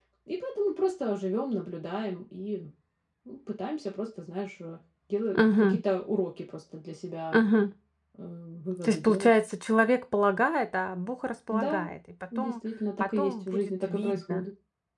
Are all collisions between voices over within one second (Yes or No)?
No